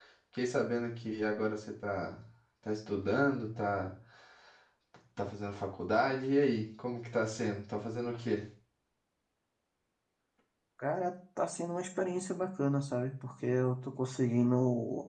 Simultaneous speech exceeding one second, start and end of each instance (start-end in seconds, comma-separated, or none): none